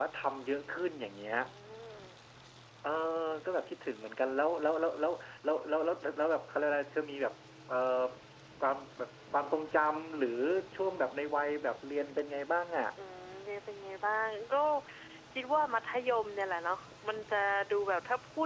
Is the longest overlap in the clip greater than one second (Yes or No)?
No